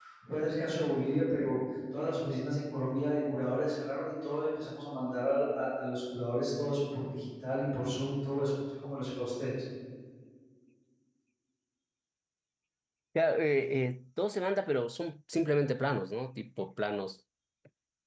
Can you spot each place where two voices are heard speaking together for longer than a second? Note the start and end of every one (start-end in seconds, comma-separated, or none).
none